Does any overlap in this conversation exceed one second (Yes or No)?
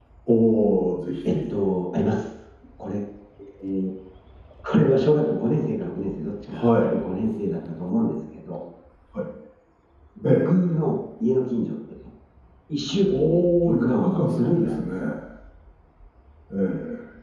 Yes